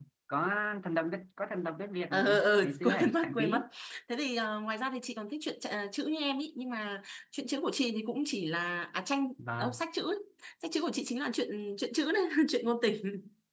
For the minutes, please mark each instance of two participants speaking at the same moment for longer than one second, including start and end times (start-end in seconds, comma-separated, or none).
2.1-3.6